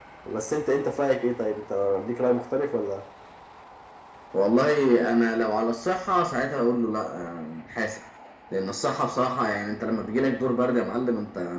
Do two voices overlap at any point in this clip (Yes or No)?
No